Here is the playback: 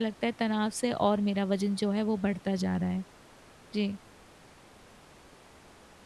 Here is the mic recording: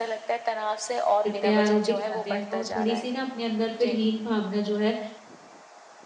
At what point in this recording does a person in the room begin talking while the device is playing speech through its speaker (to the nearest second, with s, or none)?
1 s